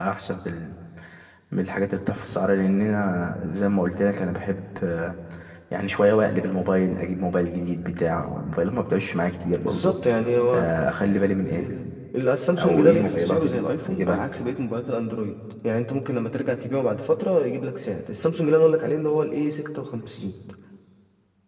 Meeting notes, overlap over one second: present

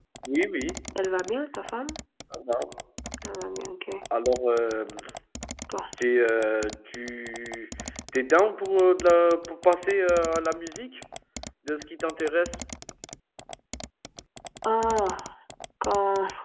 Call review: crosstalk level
none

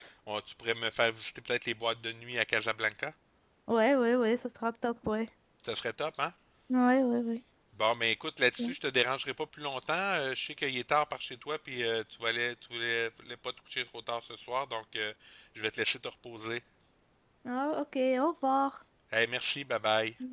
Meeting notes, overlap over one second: none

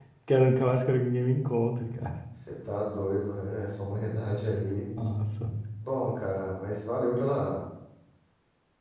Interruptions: none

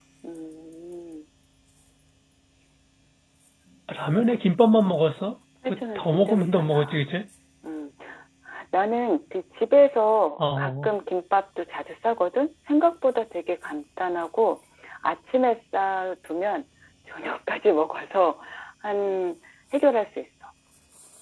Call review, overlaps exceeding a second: present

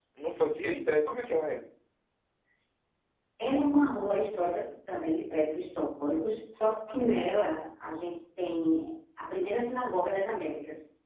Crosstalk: none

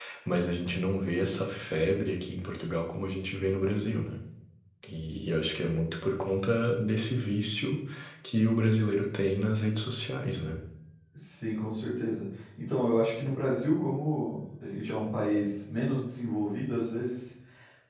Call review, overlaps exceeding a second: none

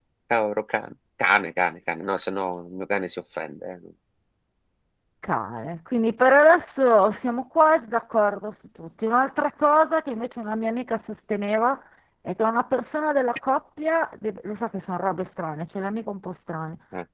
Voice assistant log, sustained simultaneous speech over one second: none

